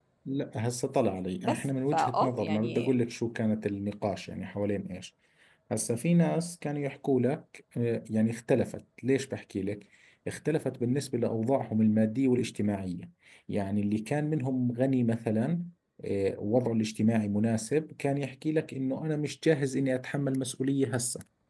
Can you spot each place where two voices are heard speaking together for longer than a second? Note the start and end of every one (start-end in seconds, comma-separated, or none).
1.4-2.9